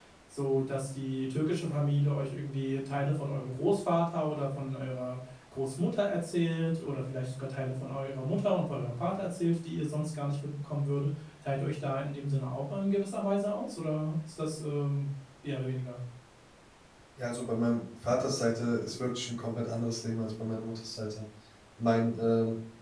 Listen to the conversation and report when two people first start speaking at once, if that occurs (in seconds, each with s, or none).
none